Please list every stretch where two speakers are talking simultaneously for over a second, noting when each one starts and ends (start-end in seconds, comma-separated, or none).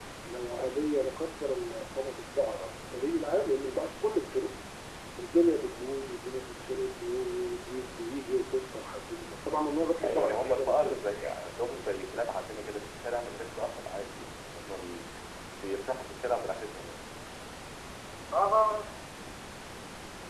10.0-11.3